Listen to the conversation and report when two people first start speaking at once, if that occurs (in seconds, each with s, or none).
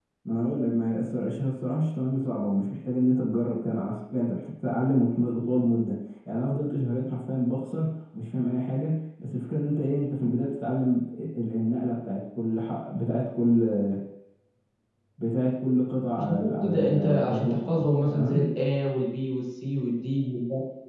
16.2 s